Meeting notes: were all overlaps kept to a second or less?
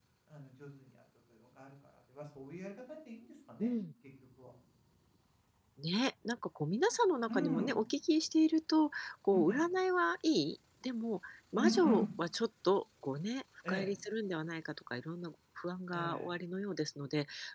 Yes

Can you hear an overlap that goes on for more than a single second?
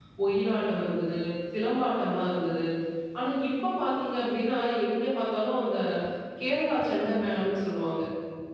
No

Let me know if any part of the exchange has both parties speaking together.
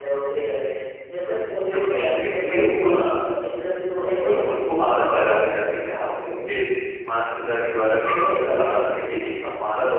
Yes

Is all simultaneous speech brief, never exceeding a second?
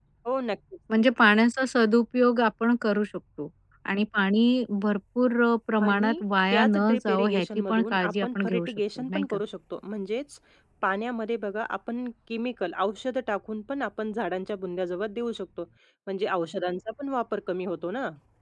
No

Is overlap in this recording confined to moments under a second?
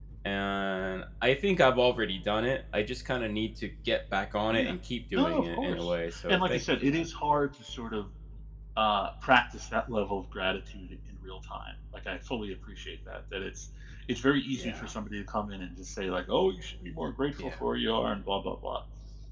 No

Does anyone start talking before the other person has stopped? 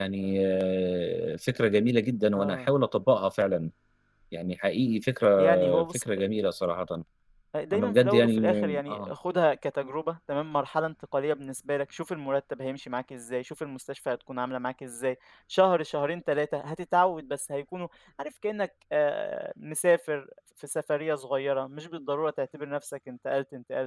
Yes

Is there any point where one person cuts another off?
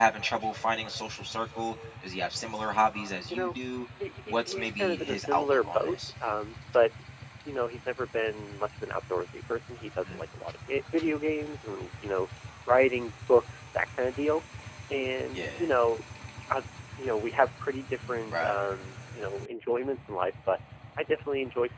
Yes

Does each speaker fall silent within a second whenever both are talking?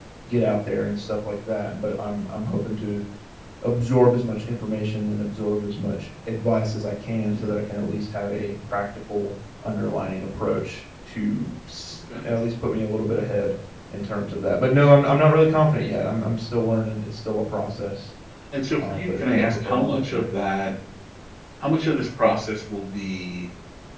No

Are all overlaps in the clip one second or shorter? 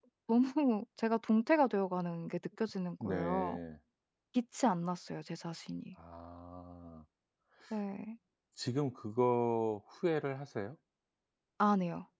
Yes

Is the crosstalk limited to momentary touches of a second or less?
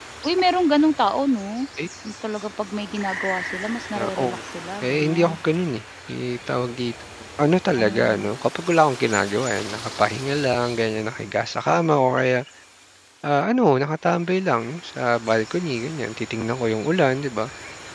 Yes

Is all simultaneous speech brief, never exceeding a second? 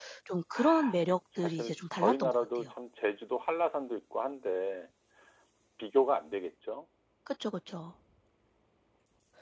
No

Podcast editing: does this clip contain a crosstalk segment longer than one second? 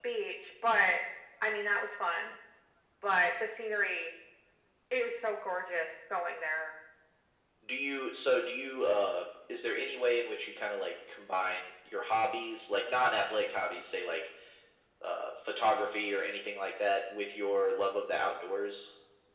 No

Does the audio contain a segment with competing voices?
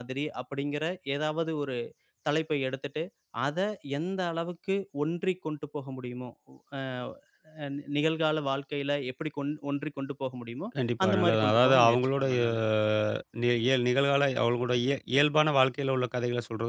Yes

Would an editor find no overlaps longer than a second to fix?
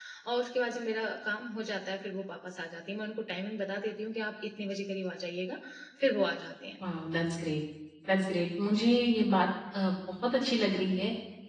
Yes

